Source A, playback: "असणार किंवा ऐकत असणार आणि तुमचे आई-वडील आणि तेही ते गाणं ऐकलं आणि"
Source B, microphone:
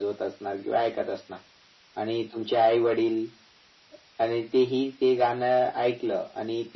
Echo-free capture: No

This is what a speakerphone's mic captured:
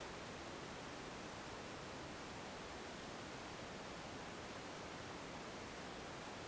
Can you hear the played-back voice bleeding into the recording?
No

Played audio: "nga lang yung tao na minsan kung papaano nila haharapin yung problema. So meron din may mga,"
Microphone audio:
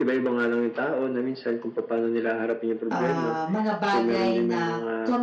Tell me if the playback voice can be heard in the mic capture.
Yes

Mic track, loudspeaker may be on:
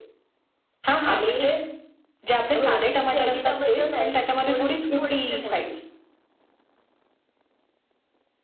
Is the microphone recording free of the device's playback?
No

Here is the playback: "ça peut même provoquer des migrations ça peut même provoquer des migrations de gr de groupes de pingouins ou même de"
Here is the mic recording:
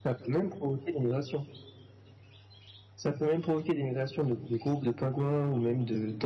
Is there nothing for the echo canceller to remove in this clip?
No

